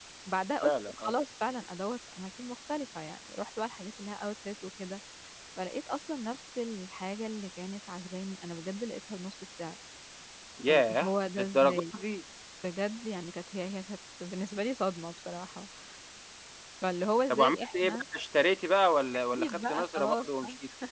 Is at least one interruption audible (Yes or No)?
Yes